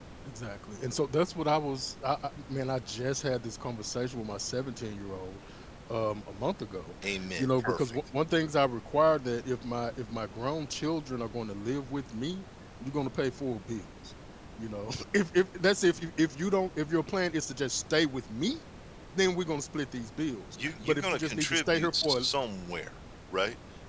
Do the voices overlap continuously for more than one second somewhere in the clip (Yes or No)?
Yes